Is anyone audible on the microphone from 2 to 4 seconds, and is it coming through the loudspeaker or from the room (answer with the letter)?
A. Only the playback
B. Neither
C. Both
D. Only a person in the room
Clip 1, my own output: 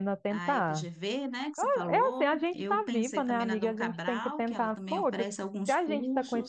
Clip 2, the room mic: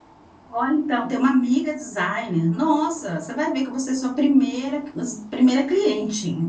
D